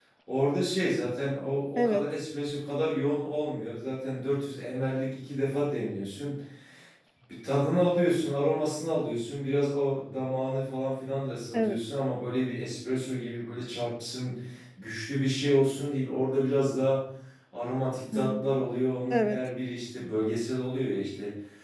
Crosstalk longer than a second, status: none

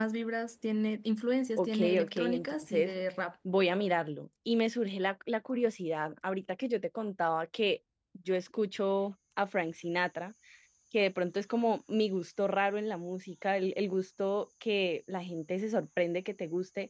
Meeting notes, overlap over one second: present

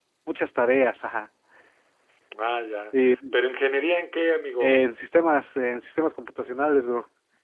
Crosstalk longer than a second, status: none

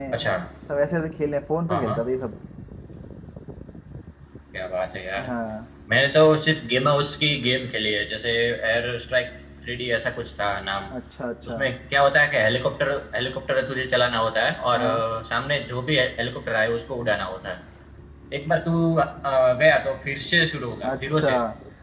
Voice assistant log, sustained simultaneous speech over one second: none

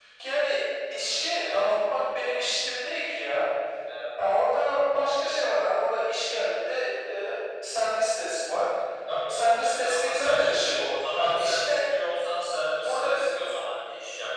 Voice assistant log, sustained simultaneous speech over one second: present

